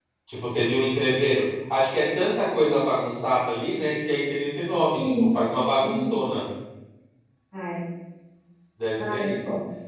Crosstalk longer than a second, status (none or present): none